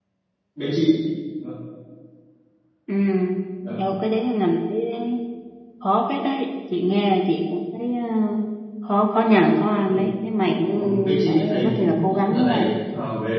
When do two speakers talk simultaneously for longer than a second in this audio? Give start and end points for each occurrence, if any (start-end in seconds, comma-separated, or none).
10.8-12.7